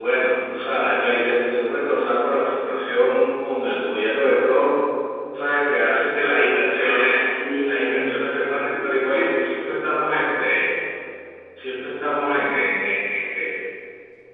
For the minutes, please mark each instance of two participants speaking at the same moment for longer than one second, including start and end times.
7.7-9.0

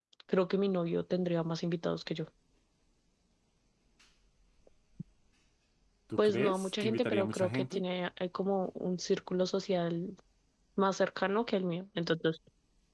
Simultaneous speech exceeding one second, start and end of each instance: 6.2-7.8

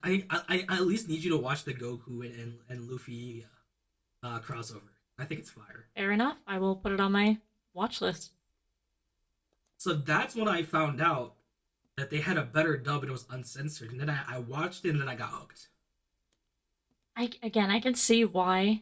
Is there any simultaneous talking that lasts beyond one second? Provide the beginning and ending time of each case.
none

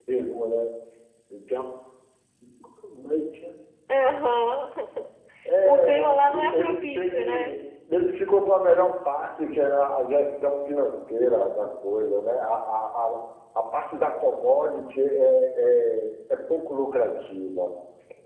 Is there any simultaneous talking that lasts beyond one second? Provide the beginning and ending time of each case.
5.6-7.5

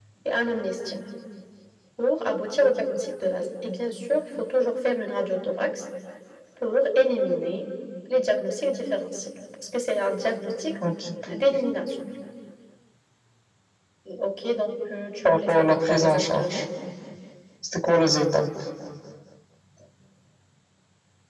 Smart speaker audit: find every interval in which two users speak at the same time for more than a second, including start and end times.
15.2-16.6

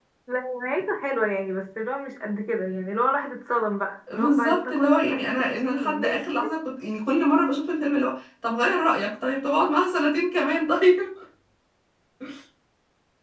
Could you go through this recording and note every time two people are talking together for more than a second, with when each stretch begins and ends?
4.1-6.2

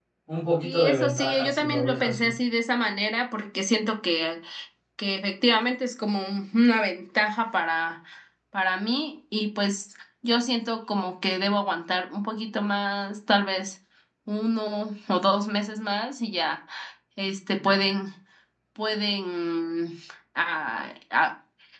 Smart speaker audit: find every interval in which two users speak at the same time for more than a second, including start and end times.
0.6-2.3

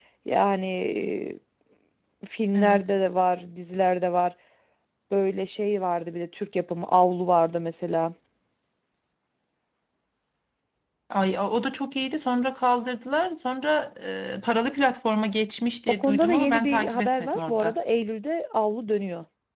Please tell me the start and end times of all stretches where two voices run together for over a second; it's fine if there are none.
15.9-17.7

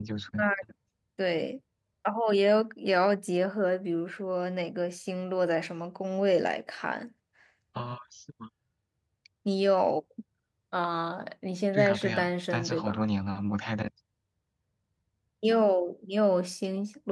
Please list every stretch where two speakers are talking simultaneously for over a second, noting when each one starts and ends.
11.7-13.0

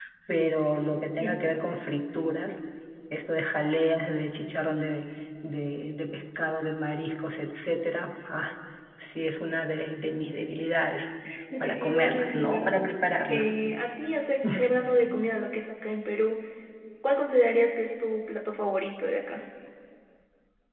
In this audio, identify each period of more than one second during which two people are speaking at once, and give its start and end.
11.6-12.9

